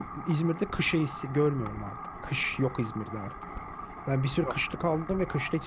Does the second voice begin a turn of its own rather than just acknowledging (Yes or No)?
No